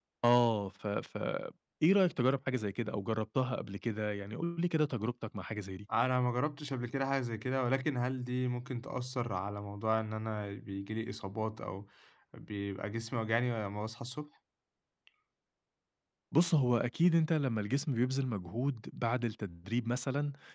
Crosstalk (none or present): none